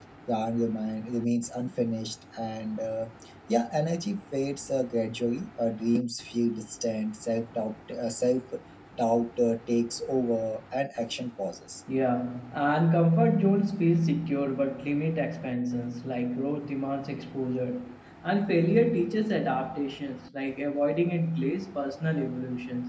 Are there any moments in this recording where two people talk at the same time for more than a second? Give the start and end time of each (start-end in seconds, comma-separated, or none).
none